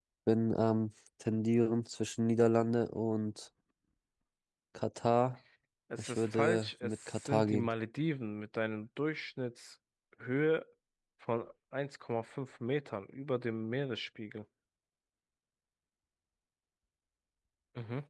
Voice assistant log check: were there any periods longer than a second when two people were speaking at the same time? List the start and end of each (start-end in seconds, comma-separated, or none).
6.0-7.7